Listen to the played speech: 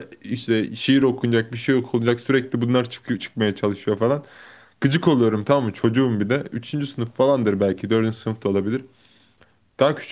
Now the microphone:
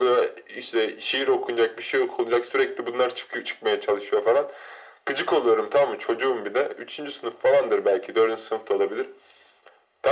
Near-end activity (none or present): none